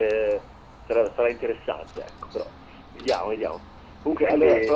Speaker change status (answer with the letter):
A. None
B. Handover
A